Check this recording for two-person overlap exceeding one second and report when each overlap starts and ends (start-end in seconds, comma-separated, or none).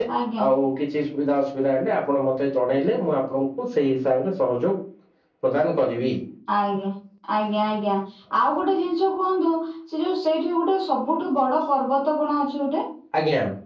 none